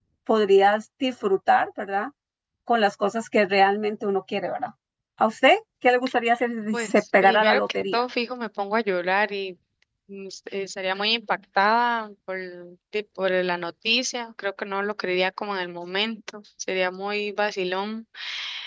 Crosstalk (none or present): present